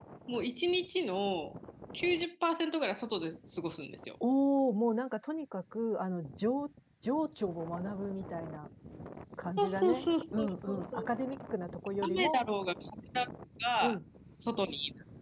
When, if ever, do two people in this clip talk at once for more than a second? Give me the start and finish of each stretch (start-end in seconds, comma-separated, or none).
9.6-11.2